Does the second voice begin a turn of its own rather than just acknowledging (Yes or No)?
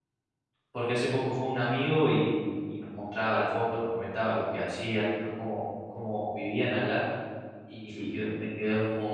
No